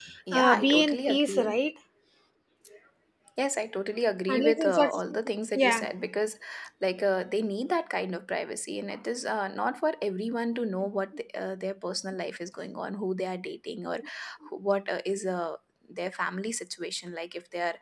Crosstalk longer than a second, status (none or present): present